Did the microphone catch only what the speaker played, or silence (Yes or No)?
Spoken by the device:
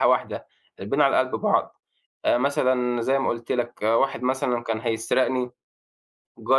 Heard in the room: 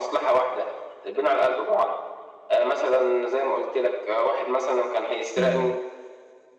No